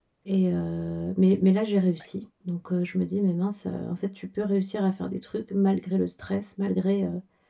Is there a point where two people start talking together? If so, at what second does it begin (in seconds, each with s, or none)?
none